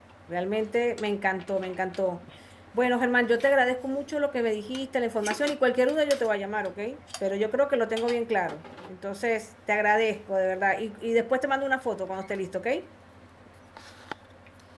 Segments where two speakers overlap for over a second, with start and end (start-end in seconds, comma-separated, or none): none